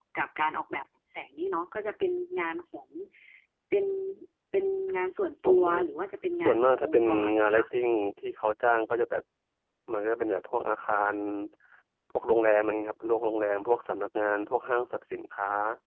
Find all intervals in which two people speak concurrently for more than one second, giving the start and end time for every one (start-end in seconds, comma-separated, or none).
6.4-7.6